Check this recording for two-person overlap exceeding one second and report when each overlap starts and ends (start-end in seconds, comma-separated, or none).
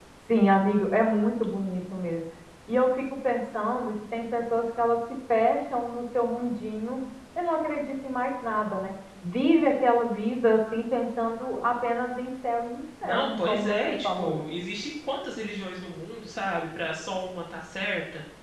13.0-14.4